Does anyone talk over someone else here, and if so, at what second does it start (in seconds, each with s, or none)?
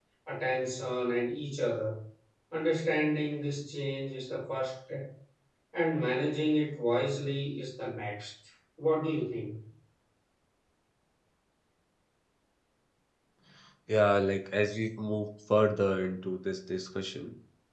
none